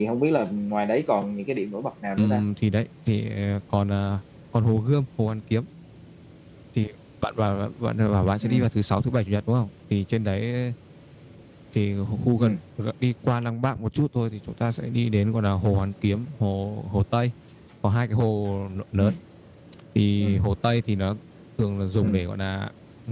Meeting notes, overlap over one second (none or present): none